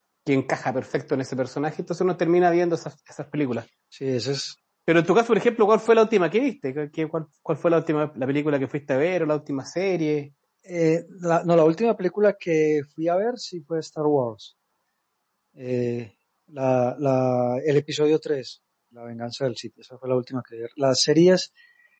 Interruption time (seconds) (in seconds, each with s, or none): none